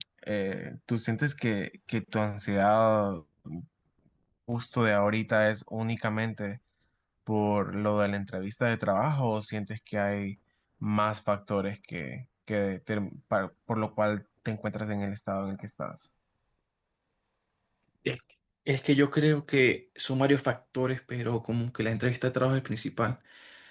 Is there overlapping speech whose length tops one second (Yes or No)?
No